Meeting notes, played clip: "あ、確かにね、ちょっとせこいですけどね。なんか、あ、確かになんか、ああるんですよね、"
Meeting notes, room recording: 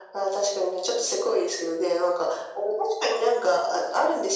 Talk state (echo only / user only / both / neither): echo only